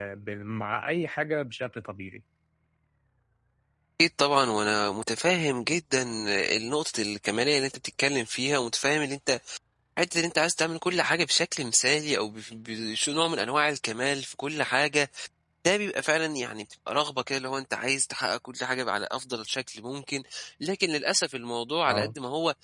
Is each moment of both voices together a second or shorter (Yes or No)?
Yes